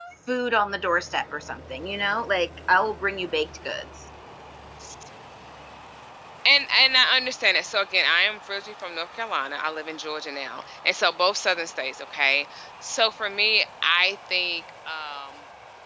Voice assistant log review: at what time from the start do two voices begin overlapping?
none

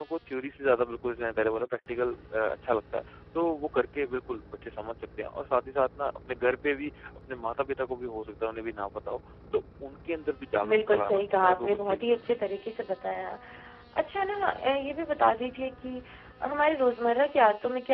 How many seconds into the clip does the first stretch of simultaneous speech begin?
11 s

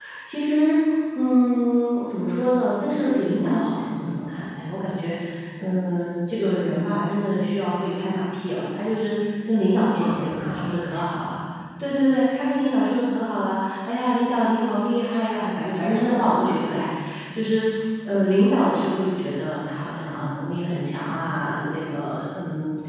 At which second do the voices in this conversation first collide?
10 s

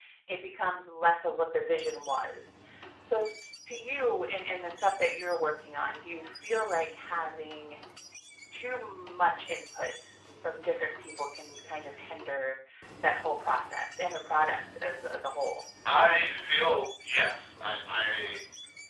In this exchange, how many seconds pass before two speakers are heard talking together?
none

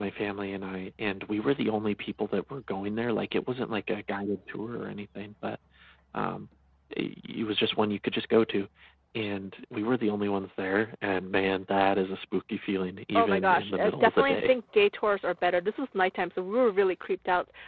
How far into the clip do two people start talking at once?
13 s

